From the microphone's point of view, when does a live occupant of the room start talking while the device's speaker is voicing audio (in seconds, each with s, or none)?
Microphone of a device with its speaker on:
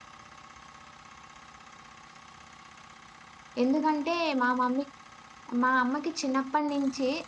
3.6 s